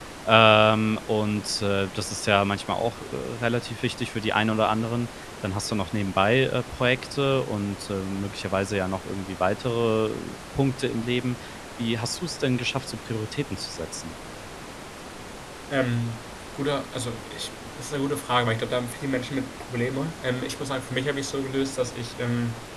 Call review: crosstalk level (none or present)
none